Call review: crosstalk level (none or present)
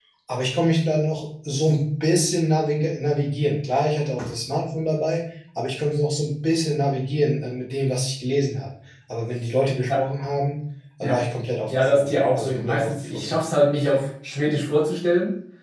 present